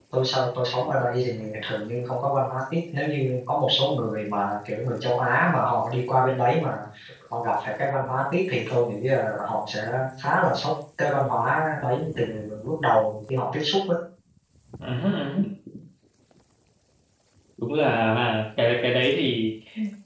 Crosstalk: none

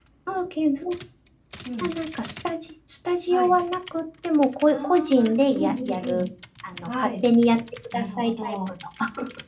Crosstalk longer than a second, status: present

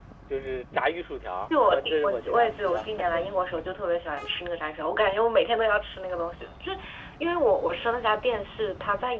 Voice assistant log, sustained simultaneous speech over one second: present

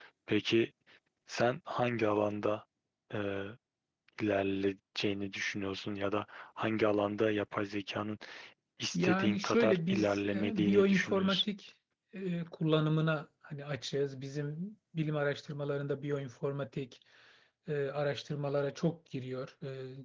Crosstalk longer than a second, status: present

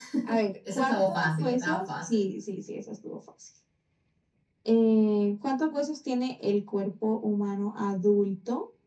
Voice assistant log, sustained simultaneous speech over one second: present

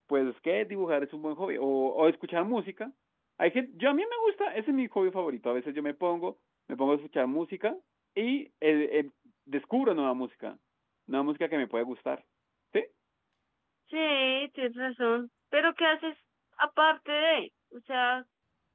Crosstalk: none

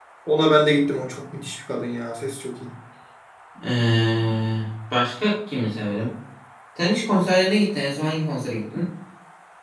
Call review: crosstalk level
none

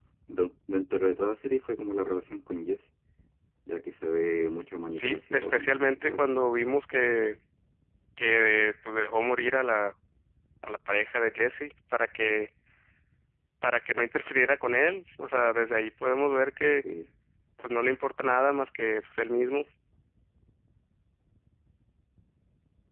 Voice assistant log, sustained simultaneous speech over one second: present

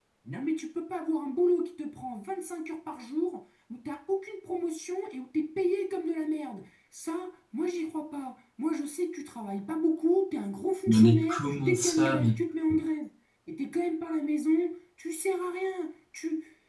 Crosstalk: present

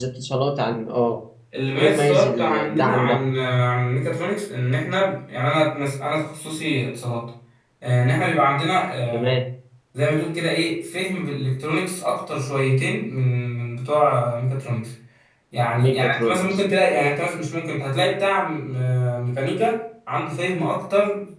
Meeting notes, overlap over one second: present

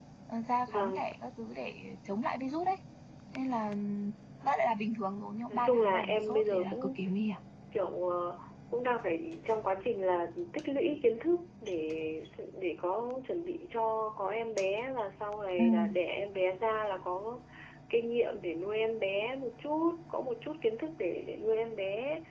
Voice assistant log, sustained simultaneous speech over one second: present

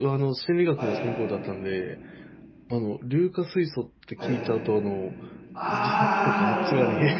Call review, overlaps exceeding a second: present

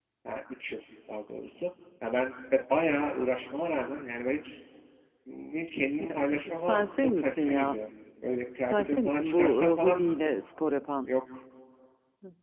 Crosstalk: present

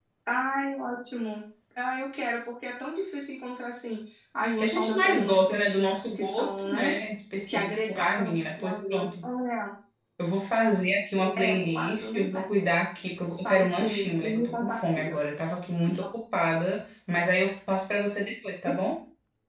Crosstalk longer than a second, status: present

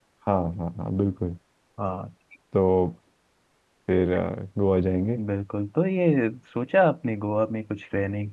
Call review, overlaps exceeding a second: none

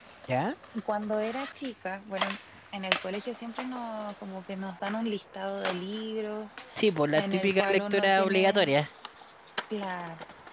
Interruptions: present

